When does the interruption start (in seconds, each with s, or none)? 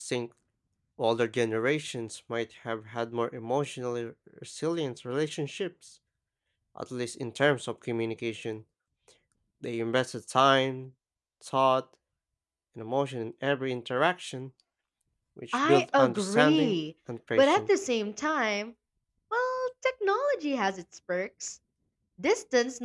15.5 s